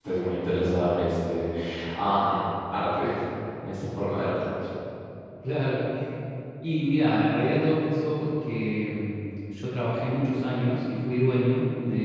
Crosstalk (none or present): none